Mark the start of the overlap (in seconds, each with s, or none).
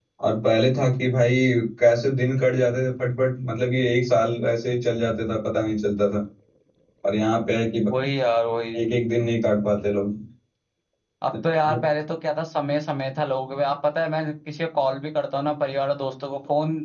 none